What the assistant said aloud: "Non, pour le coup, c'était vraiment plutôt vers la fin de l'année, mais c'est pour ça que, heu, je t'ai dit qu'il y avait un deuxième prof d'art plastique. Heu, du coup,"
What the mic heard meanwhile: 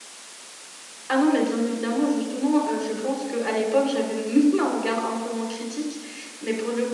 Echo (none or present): none